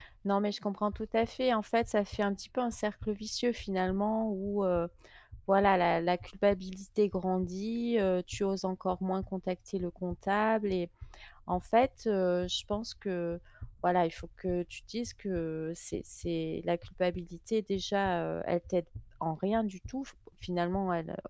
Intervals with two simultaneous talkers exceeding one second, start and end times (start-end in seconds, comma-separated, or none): none